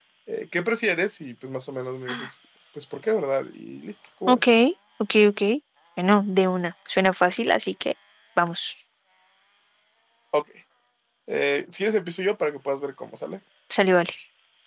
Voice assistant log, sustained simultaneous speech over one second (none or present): none